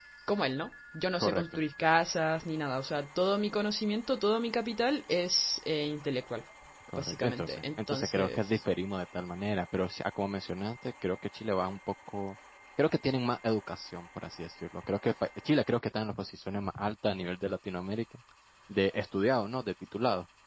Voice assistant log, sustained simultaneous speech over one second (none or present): present